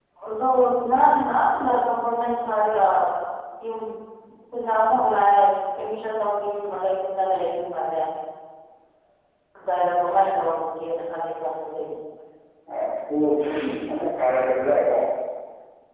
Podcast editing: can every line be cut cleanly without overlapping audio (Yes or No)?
Yes